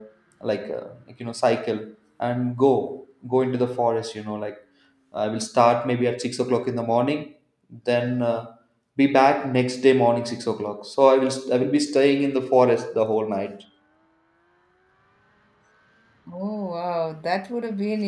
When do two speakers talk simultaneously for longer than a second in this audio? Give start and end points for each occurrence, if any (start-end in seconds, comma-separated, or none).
none